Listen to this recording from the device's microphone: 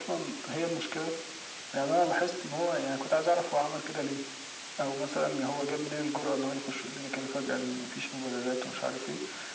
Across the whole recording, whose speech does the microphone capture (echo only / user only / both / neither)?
echo only